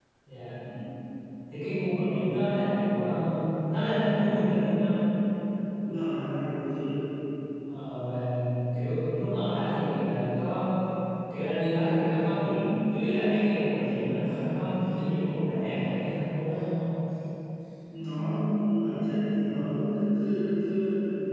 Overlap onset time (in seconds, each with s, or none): none